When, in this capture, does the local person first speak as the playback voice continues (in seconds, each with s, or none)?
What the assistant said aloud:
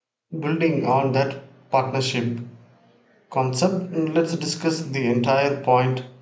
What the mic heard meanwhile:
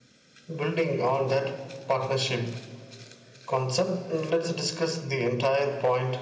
none